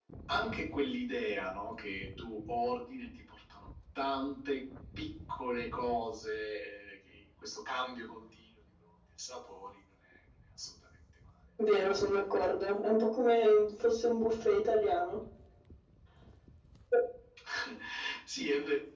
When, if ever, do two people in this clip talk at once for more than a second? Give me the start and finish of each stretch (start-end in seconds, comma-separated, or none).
none